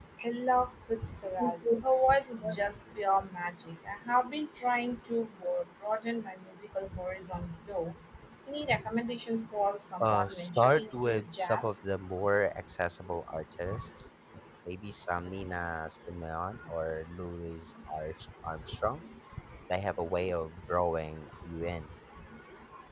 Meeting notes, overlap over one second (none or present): present